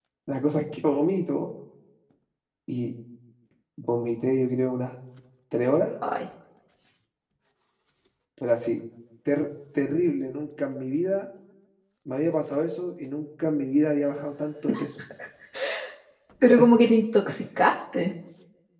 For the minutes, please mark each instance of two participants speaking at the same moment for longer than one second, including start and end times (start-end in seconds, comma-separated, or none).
none